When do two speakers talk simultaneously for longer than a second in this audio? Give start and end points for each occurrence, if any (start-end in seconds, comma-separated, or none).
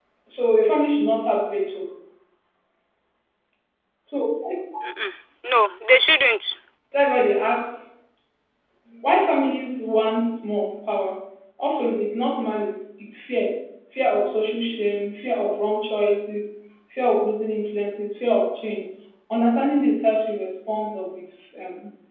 none